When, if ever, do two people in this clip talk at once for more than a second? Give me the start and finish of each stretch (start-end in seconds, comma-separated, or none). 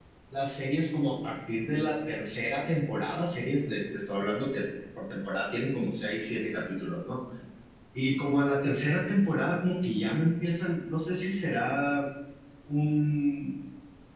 none